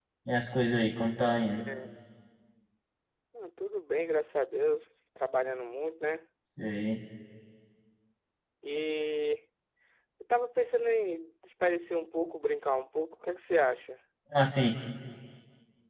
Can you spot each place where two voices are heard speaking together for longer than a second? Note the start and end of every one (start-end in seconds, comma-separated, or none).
none